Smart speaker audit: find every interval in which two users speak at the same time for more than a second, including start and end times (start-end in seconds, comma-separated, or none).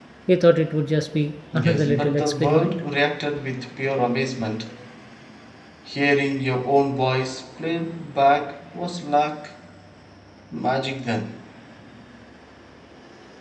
1.5-2.8